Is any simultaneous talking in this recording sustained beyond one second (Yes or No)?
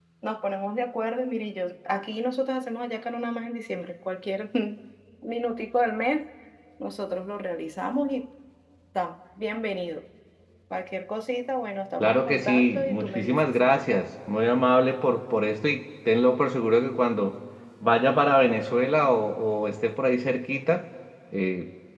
Yes